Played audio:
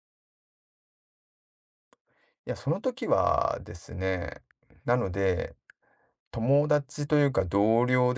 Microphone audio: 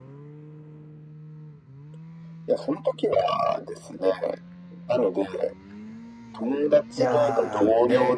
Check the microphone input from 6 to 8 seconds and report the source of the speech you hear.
both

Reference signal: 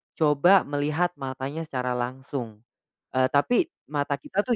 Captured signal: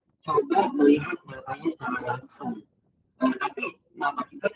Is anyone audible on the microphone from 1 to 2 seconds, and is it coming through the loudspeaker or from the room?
echo only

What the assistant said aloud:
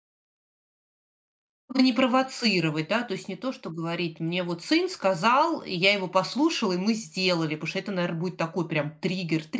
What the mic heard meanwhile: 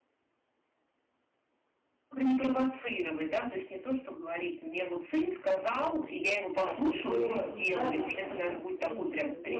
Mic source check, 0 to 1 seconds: neither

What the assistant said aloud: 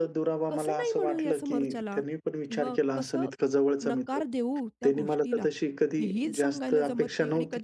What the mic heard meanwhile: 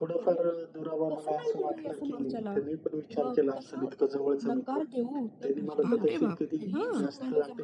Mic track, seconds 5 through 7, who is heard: both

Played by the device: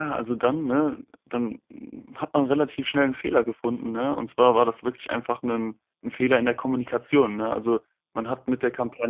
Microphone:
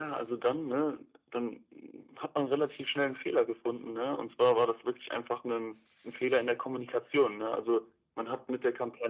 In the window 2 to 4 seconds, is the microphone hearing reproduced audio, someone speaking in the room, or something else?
echo only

